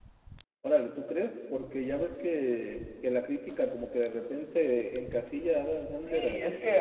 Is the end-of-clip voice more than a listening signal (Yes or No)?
Yes